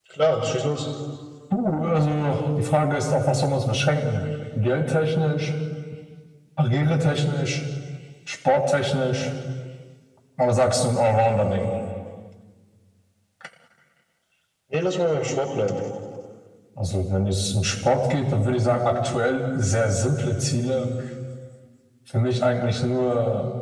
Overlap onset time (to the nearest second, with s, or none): none